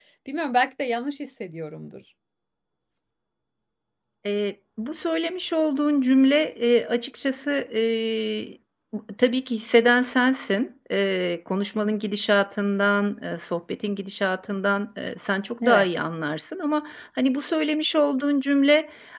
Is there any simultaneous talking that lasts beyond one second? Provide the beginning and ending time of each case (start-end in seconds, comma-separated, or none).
none